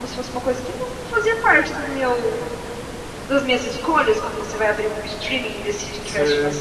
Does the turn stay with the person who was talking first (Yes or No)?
Yes